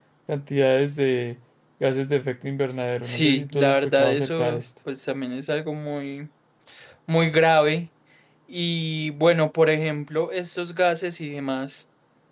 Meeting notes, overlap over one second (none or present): present